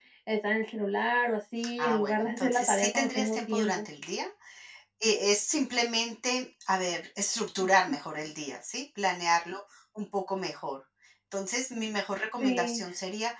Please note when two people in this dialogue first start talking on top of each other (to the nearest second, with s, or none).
2 s